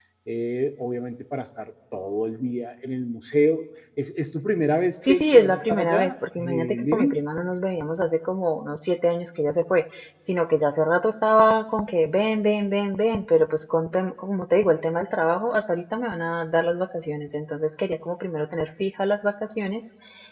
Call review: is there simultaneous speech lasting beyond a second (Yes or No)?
Yes